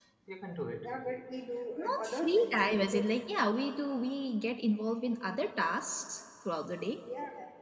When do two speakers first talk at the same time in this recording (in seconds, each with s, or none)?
1.8 s